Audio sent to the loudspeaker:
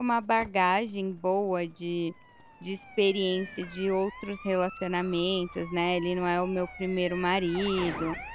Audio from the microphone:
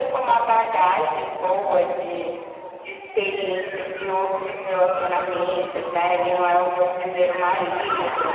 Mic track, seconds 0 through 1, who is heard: echo only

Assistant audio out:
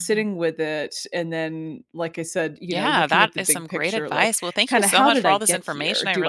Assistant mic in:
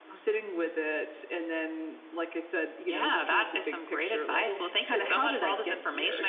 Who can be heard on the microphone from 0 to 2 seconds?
echo only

